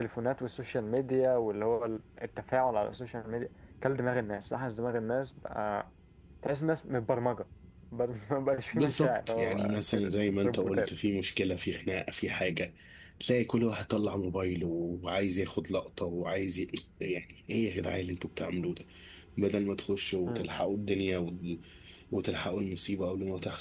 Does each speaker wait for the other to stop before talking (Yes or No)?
No